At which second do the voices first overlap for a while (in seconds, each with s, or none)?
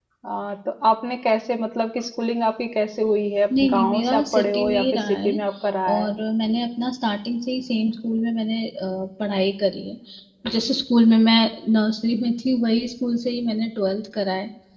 3.5 s